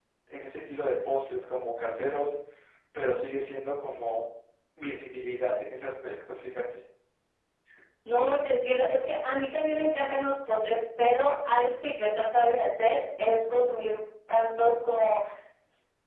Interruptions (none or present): none